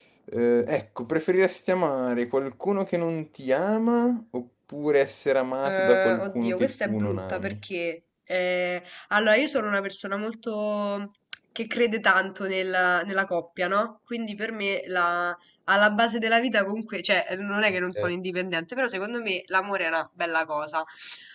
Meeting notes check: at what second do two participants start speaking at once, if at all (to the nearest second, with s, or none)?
6 s